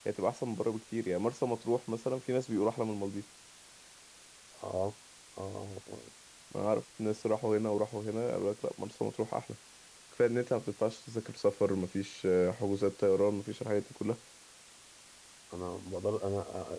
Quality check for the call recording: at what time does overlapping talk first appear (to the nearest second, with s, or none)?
none